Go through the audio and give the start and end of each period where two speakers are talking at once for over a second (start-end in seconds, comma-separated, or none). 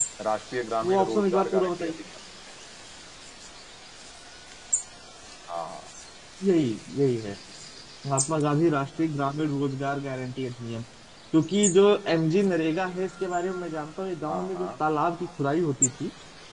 0.8-2.0